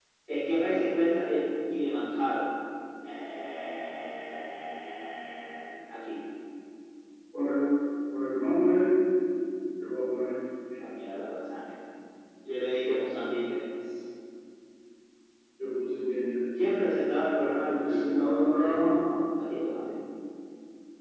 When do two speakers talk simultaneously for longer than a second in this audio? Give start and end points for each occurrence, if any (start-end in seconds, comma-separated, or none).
17.6-18.9